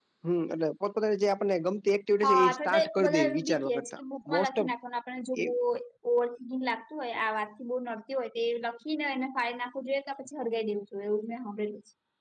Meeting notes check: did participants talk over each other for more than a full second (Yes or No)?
Yes